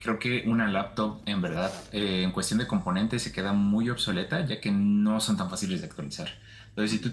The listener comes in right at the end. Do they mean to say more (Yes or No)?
No